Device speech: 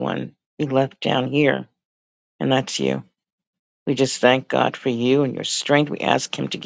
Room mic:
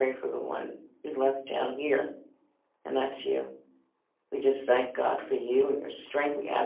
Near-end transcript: none

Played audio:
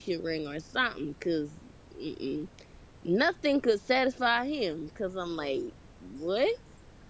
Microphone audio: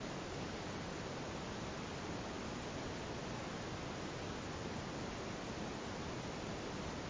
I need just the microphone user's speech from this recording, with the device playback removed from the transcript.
none

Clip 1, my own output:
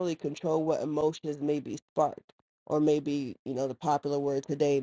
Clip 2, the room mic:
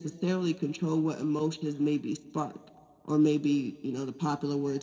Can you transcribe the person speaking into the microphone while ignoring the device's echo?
none

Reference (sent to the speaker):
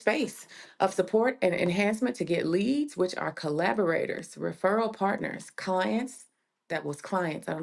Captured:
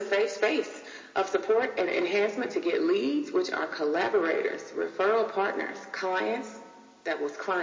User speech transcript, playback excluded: none

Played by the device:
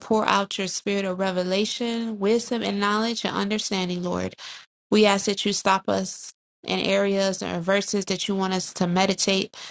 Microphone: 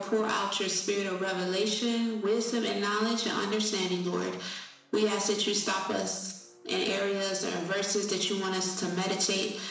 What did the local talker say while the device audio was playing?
none

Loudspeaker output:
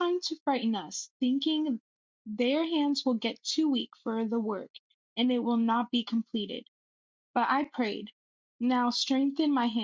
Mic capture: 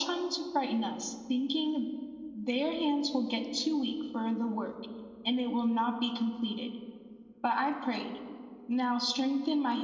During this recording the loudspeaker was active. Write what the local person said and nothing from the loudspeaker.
none

